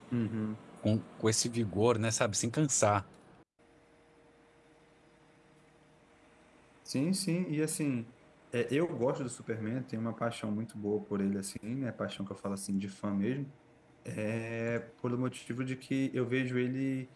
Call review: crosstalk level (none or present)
none